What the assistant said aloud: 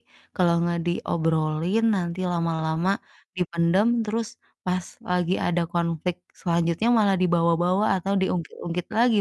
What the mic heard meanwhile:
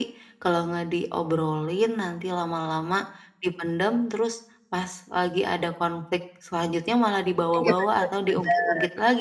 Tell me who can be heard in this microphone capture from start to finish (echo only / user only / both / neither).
both